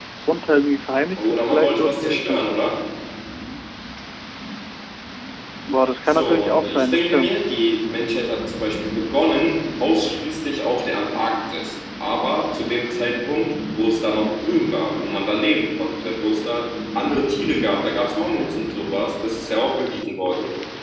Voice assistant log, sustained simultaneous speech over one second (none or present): present